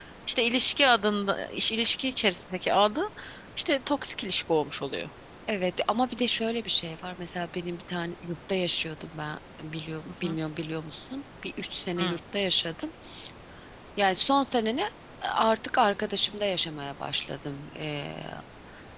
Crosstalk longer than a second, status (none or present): none